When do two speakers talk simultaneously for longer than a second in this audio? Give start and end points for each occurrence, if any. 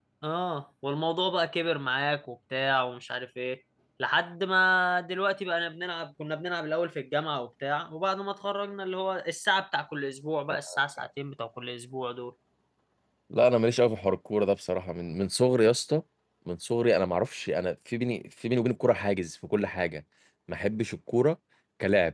none

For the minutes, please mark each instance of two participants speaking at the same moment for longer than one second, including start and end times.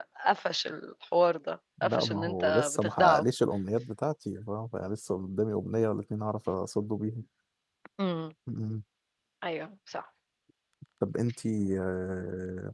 1.8-3.3

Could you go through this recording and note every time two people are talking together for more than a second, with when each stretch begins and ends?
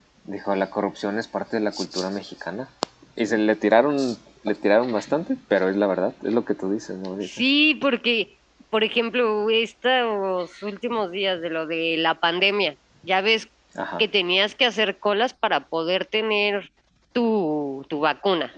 none

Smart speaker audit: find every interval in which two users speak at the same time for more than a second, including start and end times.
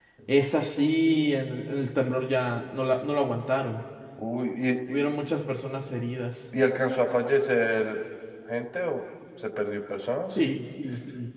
none

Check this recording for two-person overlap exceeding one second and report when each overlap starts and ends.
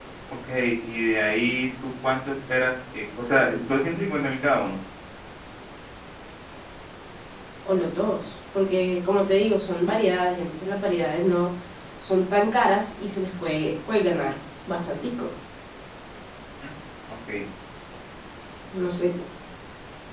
none

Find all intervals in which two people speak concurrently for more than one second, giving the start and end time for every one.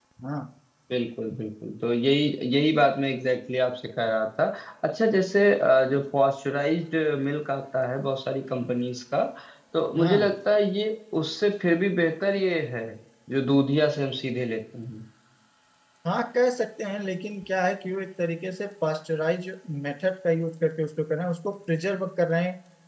none

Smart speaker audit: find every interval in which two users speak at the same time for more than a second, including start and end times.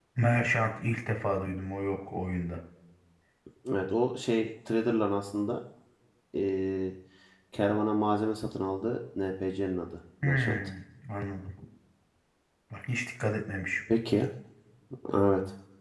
none

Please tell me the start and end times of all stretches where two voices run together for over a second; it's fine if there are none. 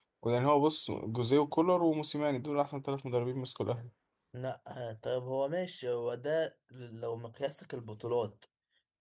none

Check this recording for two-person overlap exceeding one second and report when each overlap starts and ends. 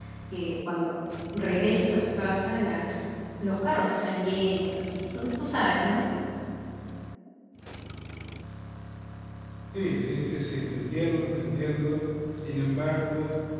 none

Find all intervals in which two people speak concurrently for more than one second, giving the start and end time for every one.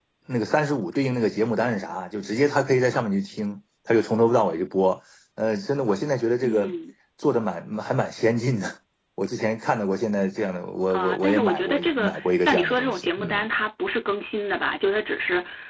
10.9-13.4

